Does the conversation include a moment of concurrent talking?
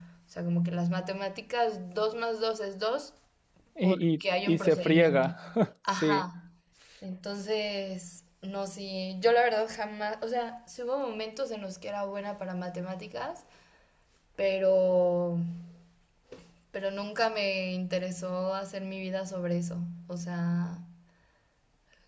Yes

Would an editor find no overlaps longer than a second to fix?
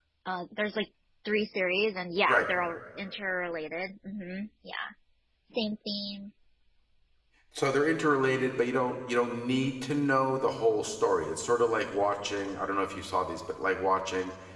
Yes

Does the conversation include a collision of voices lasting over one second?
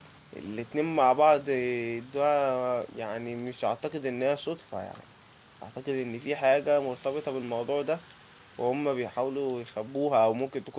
No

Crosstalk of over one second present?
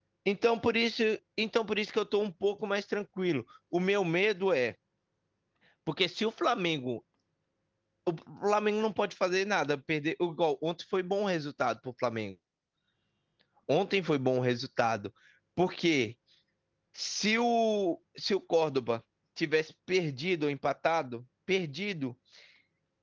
No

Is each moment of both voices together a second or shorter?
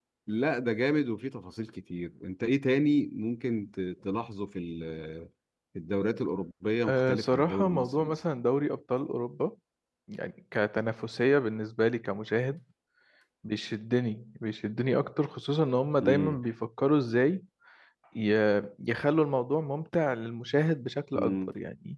No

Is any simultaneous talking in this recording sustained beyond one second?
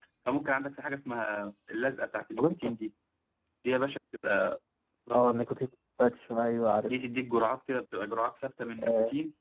No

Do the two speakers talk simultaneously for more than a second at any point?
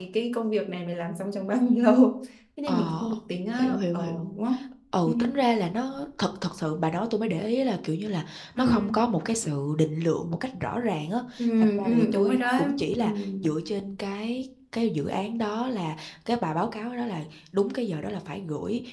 Yes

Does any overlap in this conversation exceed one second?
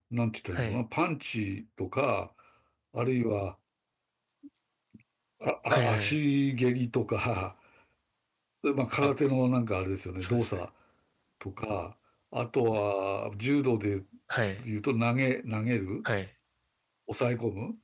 No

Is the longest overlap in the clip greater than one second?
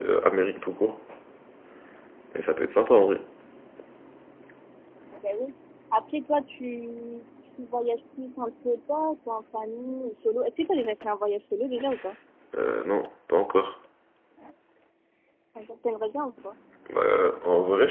No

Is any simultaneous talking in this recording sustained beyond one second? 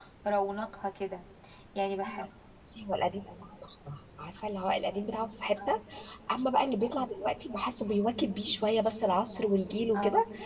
No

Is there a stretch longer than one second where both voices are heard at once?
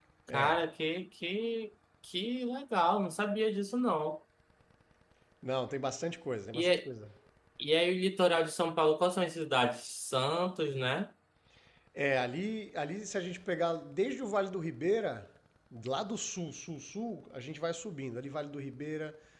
No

